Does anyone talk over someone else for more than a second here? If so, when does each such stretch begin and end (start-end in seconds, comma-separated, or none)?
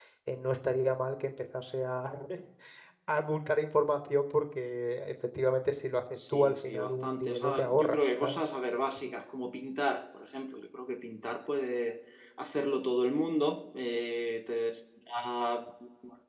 6.3-8.4